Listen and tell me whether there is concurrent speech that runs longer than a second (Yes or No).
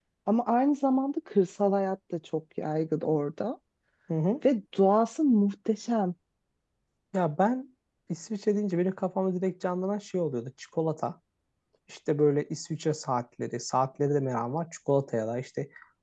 No